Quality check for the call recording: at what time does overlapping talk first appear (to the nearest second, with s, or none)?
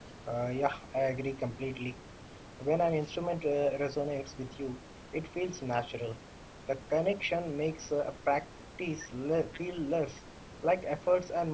none